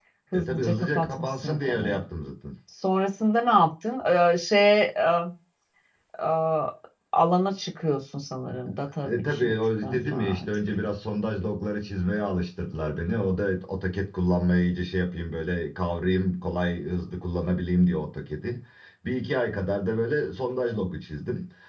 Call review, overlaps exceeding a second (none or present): present